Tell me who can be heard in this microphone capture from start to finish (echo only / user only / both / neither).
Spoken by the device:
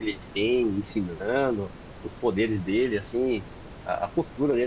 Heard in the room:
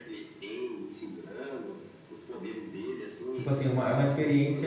both